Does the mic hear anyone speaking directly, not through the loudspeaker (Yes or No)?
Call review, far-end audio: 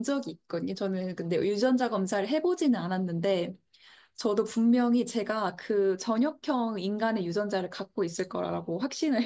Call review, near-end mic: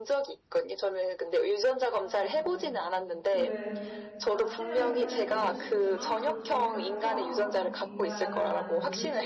Yes